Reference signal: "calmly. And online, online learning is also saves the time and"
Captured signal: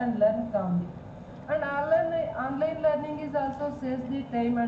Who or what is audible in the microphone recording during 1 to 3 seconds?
echo only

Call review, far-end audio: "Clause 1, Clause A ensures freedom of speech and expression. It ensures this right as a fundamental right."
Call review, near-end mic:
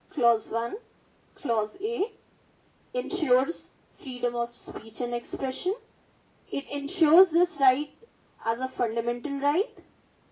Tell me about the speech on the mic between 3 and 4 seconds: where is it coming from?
echo only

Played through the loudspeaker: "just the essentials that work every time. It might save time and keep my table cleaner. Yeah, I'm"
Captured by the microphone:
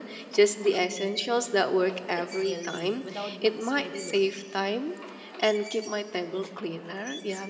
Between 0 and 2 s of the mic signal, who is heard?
echo only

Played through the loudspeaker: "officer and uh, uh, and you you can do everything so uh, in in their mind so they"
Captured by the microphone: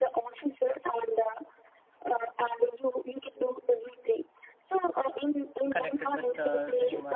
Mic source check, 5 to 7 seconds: both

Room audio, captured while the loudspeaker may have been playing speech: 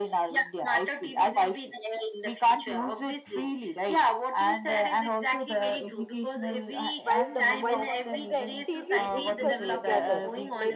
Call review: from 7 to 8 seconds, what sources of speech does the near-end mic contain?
both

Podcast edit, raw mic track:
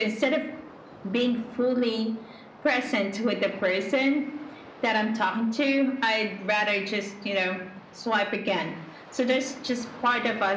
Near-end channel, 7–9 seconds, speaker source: echo only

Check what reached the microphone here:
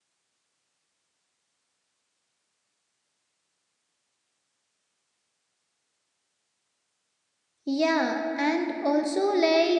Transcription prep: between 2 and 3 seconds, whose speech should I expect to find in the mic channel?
neither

